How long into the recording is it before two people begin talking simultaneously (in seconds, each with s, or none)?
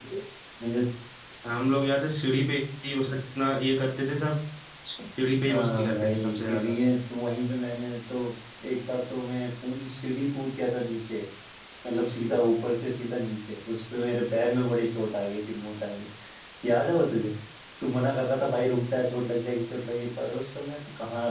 5.5 s